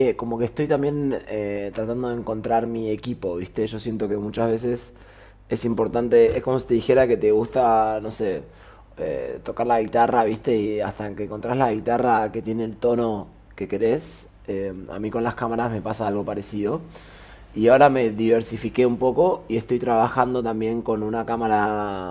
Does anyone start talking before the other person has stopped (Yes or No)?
No